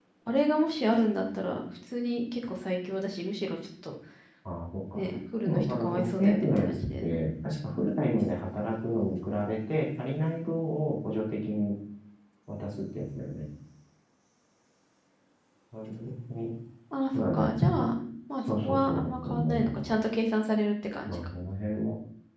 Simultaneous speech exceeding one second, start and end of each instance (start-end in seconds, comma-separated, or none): 5.4-7.2, 18.4-19.9